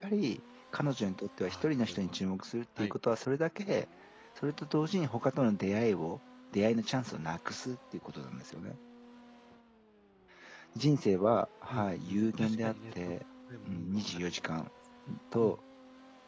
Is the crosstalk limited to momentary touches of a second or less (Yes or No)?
No